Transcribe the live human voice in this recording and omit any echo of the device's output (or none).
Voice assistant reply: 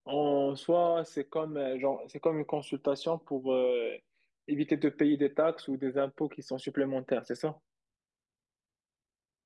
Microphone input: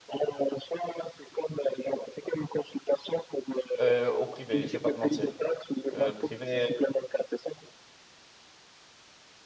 Euh, au privé, je vais pas te mentir. Euh, le privé,